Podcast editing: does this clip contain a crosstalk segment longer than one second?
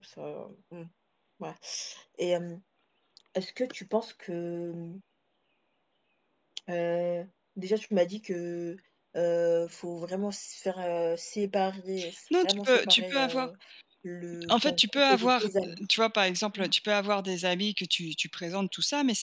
Yes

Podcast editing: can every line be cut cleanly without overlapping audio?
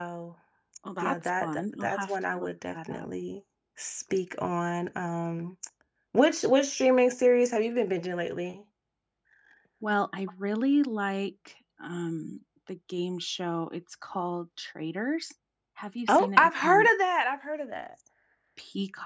No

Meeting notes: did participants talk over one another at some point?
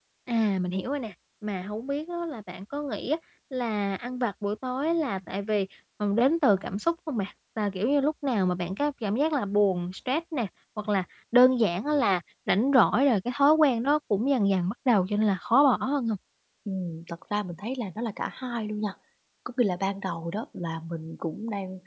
No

